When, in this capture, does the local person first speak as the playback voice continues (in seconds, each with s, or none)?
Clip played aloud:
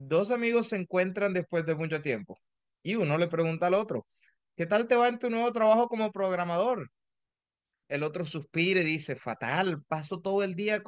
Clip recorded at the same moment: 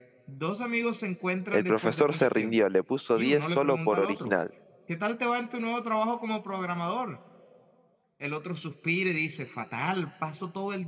1.5 s